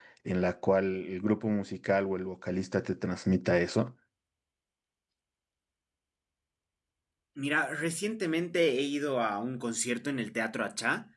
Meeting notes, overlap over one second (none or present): none